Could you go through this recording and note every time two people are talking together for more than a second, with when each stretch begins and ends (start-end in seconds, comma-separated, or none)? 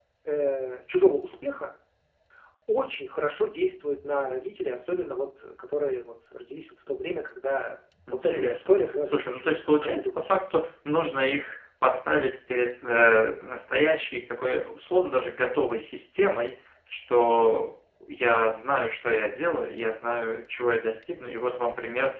8.1-10.3